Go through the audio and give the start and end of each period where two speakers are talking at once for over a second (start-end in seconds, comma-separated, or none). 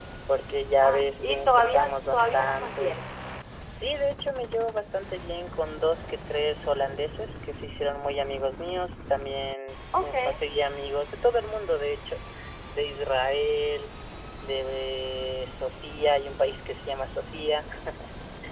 0.8-3.0